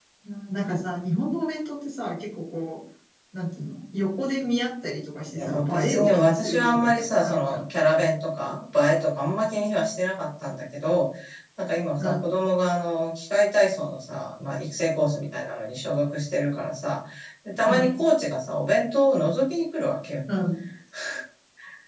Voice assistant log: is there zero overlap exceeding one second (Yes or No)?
No